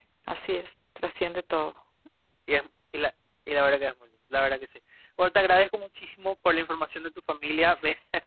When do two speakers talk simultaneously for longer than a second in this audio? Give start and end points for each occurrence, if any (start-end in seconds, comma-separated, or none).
none